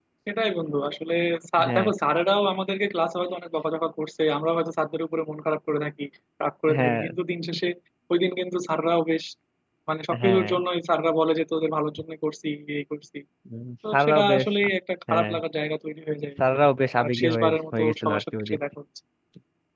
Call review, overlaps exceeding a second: present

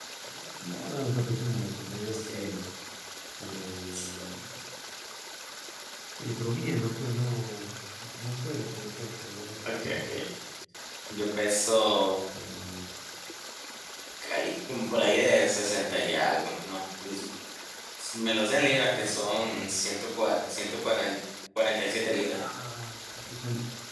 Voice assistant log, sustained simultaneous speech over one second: none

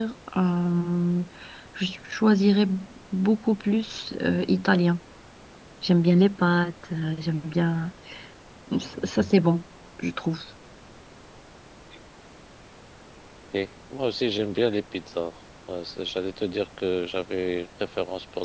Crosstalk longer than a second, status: none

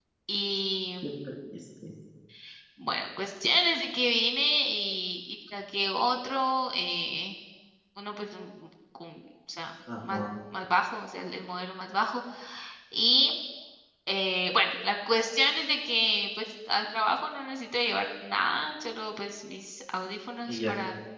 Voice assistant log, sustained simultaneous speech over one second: none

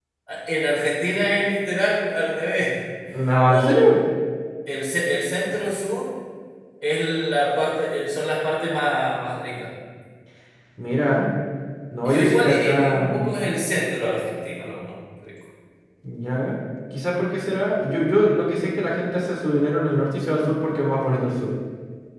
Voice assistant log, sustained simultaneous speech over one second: present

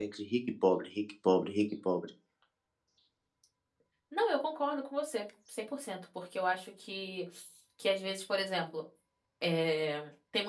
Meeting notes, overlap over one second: none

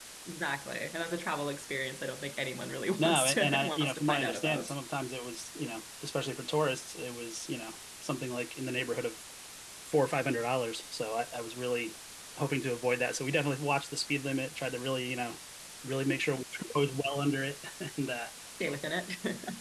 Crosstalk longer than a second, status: present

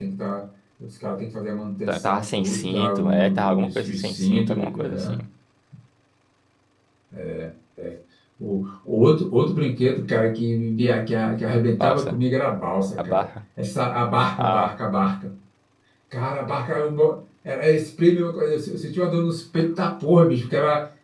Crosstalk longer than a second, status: present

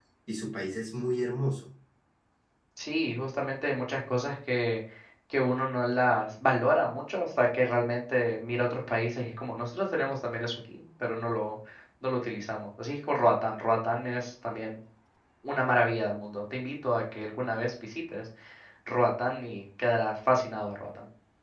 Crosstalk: none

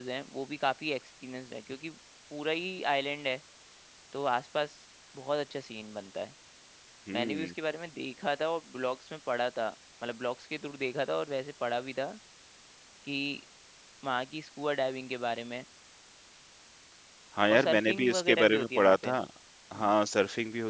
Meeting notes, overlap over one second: present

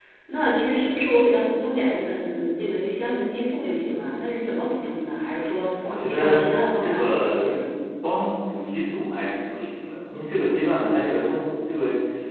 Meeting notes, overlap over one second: present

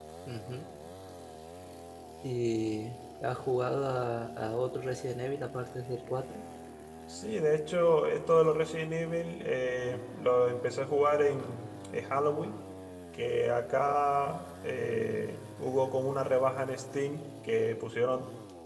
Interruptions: none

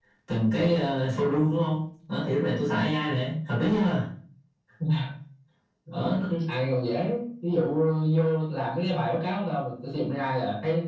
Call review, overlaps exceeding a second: none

